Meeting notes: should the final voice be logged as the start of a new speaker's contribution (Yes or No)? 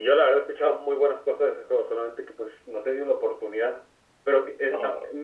No